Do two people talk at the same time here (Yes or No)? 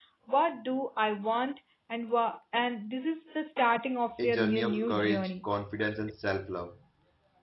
Yes